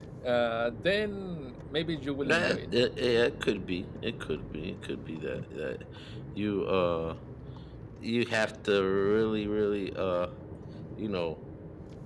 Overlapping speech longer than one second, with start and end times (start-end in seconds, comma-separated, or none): none